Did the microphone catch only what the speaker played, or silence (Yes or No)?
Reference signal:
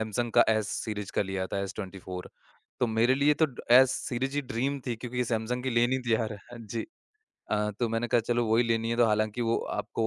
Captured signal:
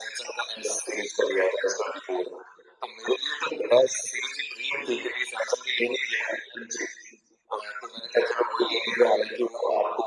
Yes